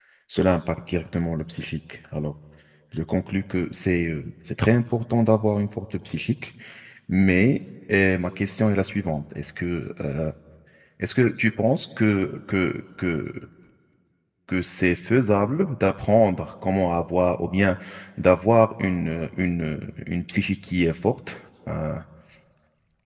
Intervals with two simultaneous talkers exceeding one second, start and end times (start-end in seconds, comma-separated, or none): none